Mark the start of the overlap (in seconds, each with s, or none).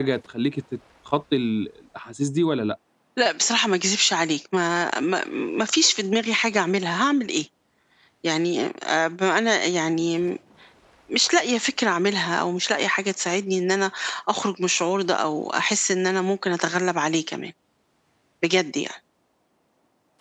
none